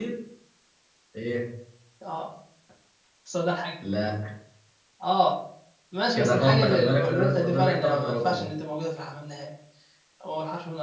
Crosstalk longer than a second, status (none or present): present